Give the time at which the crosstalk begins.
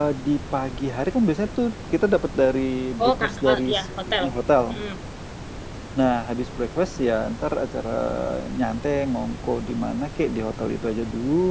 3.0 s

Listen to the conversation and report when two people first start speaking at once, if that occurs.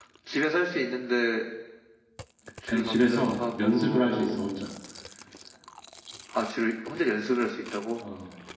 2.7 s

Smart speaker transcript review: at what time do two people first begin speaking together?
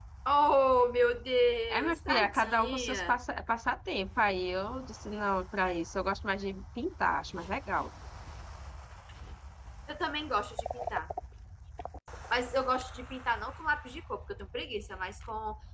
1.7 s

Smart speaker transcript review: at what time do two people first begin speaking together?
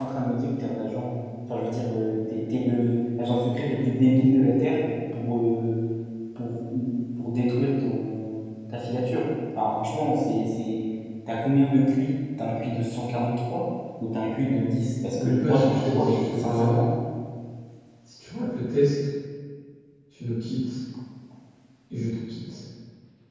15.2 s

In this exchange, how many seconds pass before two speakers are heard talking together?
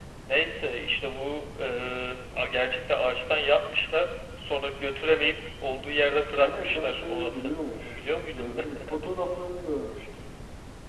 6.4 s

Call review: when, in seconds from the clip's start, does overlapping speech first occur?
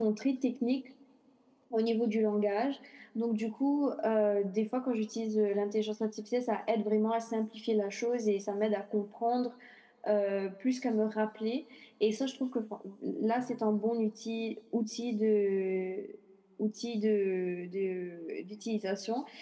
none

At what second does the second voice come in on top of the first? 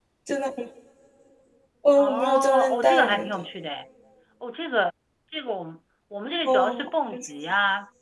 2.0 s

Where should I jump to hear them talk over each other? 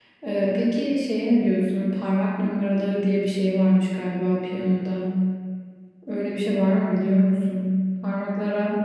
none

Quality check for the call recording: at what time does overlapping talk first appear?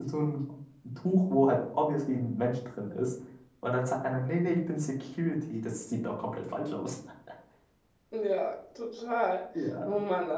none

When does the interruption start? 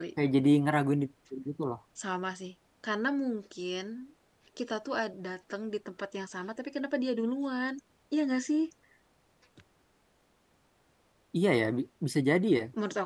none

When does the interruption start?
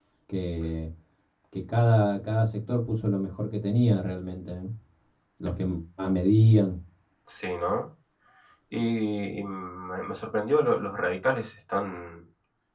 none

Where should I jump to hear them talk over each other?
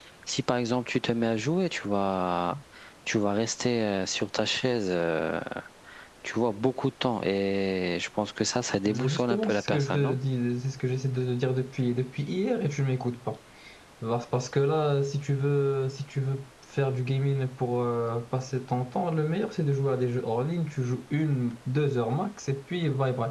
8.9 s

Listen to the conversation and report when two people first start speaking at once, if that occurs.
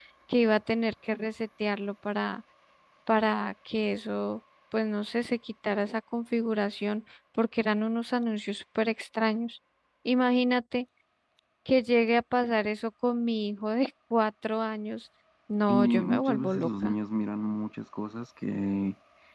15.7 s

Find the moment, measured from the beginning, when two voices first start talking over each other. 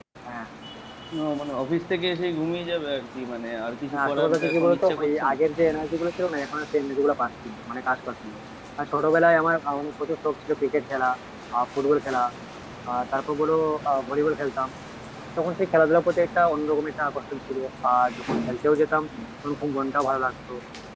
3.9 s

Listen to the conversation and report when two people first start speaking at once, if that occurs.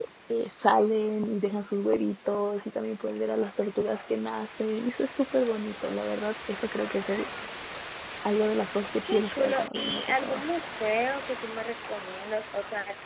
9.1 s

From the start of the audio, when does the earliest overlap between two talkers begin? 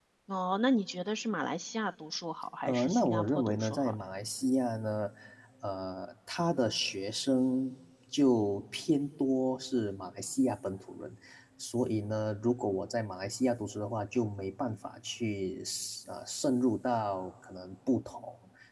2.7 s

